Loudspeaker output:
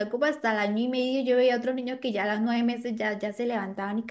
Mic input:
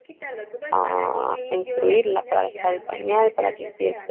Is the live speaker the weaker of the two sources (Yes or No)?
No